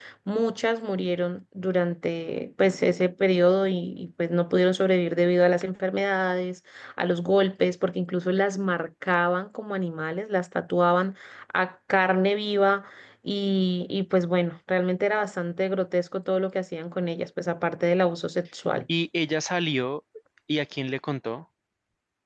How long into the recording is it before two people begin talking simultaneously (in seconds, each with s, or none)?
none